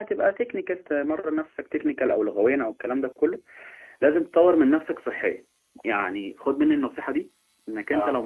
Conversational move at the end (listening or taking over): listening